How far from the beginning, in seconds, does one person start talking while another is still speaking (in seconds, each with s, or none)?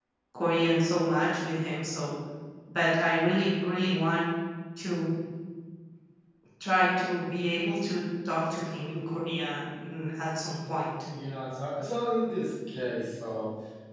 none